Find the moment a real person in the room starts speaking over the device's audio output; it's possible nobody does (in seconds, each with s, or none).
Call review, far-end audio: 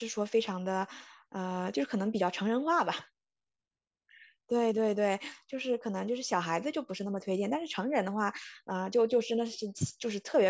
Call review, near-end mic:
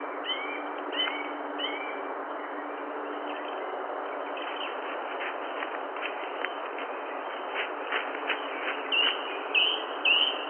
none